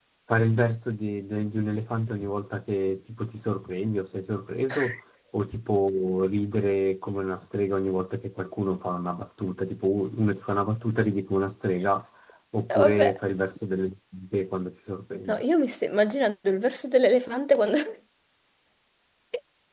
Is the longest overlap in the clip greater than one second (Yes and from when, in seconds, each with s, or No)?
No